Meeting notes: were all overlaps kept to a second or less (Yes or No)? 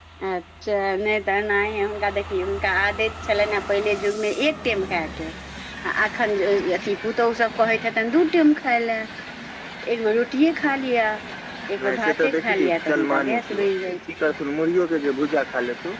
No